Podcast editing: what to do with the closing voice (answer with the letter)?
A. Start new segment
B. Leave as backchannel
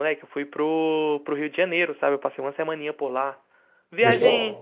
B